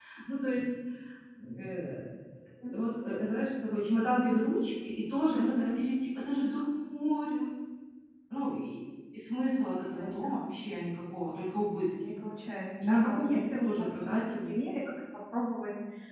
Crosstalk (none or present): present